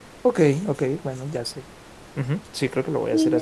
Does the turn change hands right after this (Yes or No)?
Yes